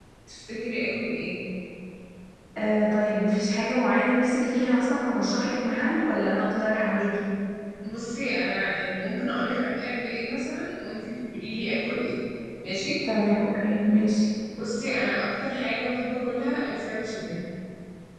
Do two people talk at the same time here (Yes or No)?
No